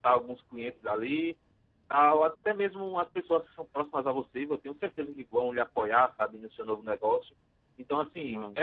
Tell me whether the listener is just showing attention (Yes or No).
Yes